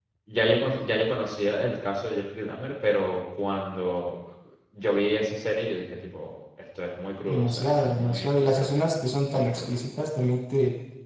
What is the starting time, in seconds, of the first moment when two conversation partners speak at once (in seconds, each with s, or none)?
7.3 s